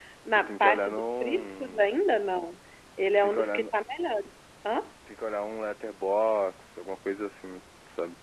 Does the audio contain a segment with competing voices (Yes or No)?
Yes